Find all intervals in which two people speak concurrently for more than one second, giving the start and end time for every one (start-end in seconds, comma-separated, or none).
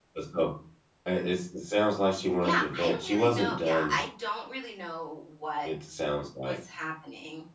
2.4-4.0